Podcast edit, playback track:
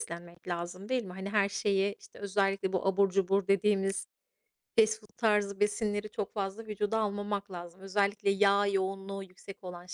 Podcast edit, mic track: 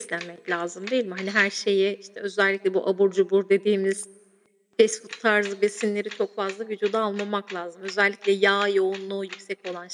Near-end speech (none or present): none